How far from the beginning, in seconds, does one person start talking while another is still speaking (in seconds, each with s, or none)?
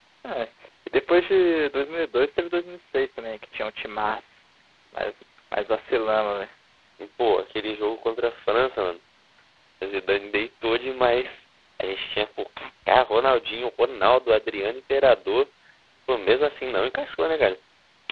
none